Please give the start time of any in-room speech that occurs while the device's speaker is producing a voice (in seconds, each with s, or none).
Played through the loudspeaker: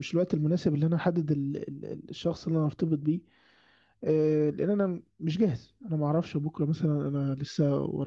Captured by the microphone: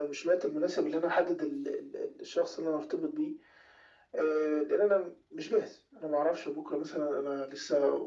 none